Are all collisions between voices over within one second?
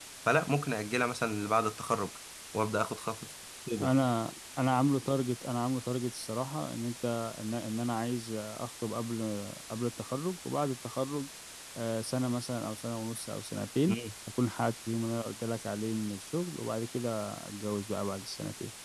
Yes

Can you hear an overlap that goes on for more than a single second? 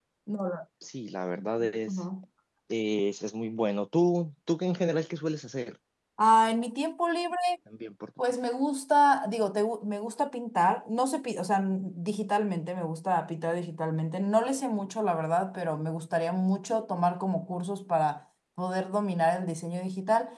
No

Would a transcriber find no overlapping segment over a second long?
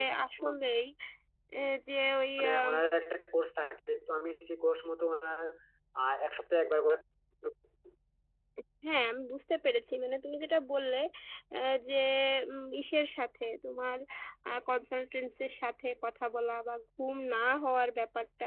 Yes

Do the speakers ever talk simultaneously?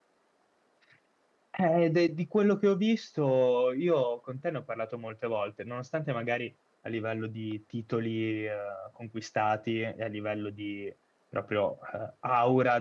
No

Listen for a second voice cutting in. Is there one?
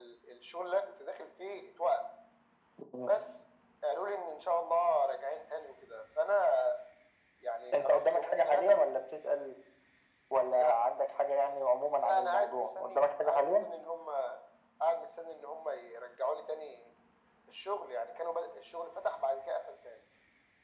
Yes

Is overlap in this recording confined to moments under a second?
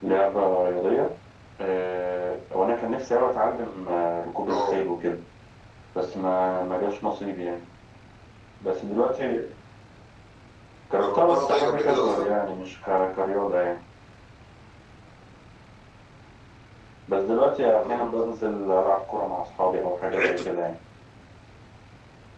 No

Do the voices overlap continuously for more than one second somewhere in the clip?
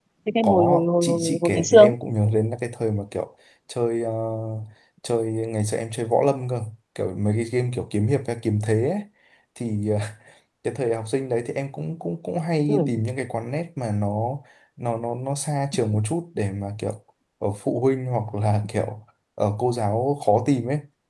Yes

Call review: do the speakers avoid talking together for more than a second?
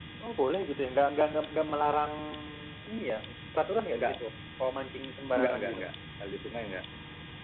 Yes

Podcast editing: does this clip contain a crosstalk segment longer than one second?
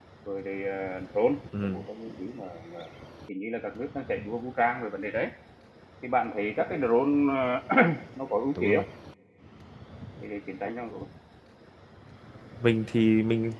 No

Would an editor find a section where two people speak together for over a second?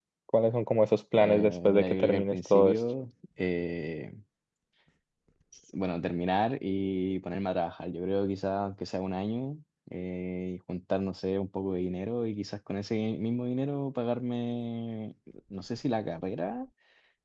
Yes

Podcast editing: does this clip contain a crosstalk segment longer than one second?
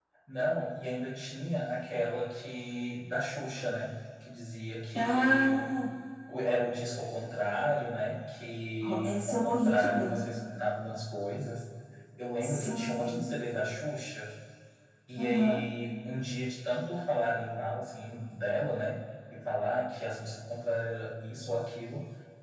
Yes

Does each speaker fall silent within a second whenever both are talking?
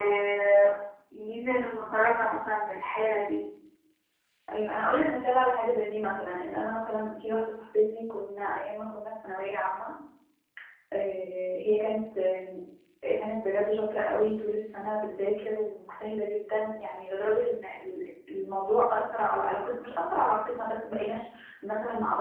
Yes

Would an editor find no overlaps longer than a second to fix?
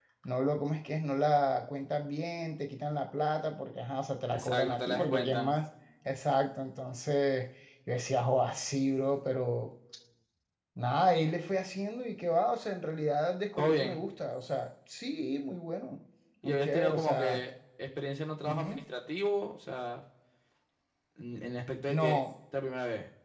No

